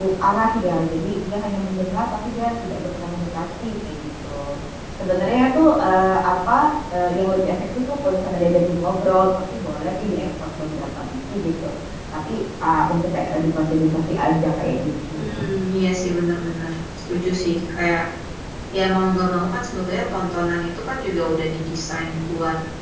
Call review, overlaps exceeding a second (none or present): none